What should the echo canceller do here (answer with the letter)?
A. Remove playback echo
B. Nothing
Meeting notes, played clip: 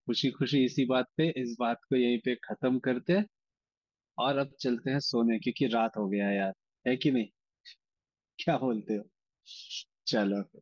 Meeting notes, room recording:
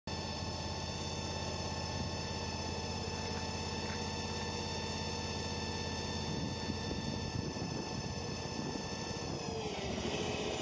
B